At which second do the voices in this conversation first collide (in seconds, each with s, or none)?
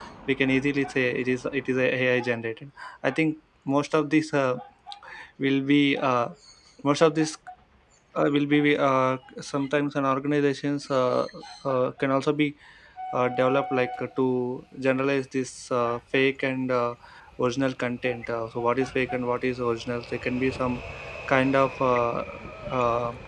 none